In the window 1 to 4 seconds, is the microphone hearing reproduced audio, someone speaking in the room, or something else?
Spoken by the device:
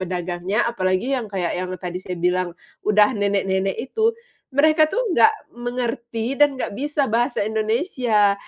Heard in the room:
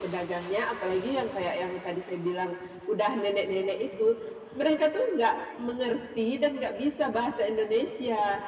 echo only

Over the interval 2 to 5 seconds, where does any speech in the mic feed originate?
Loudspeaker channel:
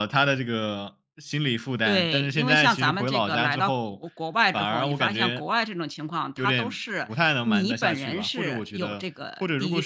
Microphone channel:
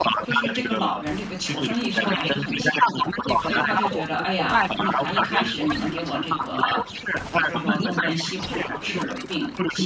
both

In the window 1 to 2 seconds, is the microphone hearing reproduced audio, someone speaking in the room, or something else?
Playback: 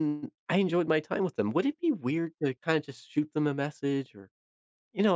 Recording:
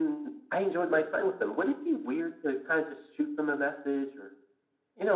echo only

